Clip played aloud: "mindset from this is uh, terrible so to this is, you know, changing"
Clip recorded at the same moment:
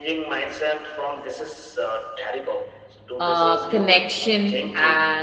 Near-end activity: present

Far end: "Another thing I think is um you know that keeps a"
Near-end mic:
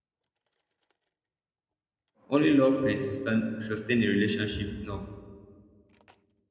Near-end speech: present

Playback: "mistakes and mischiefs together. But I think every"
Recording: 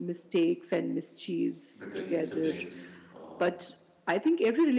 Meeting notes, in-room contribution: present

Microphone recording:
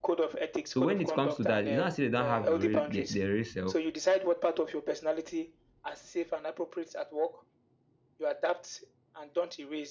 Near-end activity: present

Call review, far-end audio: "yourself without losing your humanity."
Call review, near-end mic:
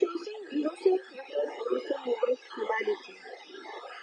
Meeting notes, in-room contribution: none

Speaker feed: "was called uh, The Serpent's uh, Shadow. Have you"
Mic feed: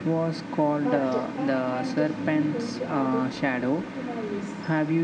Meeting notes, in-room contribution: present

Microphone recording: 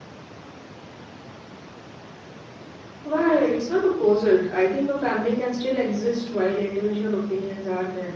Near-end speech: present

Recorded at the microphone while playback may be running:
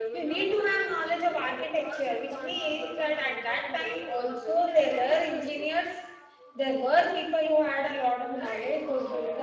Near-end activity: present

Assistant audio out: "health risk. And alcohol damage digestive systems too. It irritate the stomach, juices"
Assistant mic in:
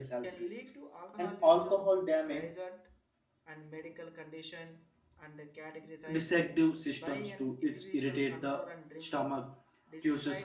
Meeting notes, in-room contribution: present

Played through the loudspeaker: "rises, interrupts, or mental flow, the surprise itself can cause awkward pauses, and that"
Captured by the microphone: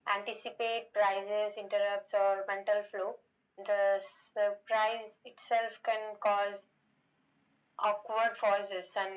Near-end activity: none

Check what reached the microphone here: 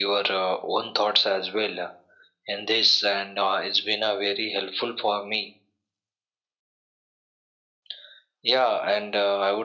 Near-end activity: none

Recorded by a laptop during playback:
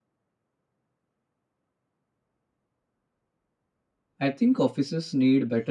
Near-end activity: present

